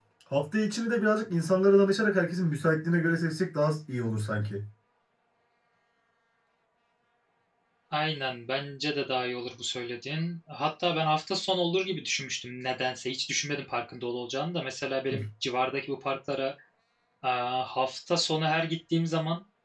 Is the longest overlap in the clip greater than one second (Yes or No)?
No